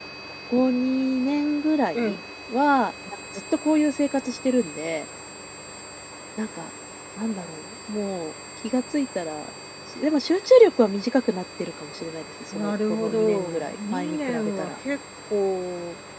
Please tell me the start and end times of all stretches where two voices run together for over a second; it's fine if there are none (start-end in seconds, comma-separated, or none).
12.5-14.7